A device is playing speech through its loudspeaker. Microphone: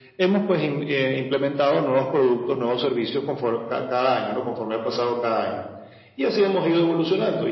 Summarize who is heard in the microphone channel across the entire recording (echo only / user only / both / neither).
echo only